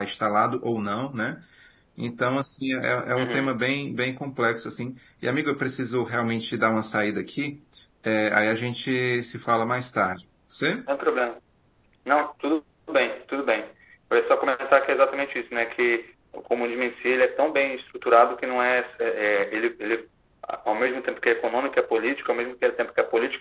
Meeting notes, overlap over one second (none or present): none